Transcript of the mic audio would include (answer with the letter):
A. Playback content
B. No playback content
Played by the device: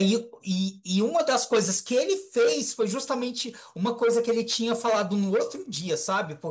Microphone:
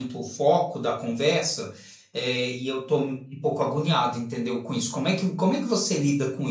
B